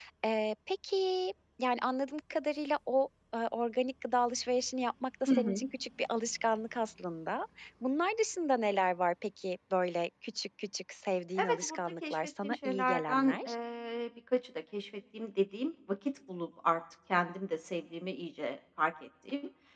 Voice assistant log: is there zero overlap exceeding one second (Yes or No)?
No